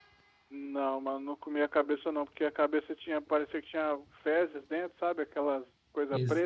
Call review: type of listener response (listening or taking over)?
taking over